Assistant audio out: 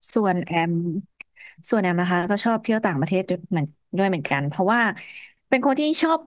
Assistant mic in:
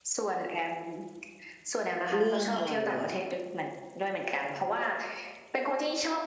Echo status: present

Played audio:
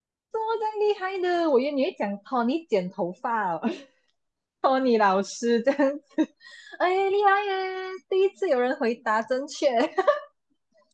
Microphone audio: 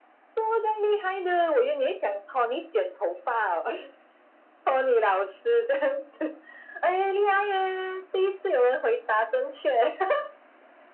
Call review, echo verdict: present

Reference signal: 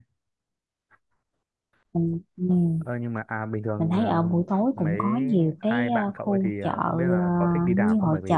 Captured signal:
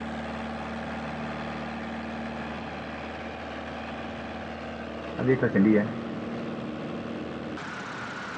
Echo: none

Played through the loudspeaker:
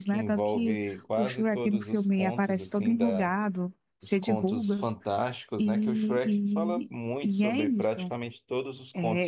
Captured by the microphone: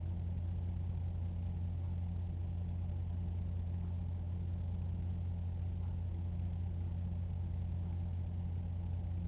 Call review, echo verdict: none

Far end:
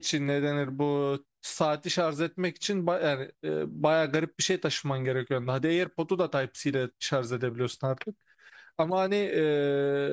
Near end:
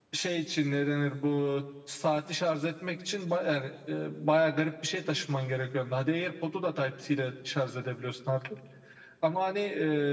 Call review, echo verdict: present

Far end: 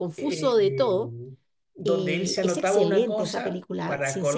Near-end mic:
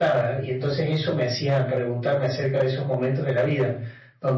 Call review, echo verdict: none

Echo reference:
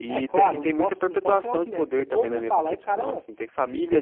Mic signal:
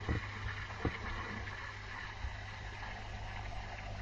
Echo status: none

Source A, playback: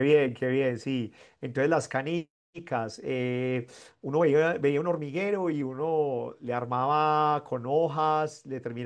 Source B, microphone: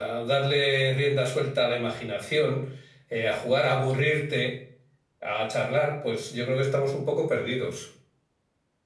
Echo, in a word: none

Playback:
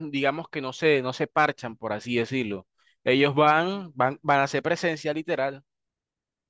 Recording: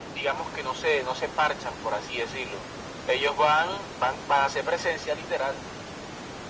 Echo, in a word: present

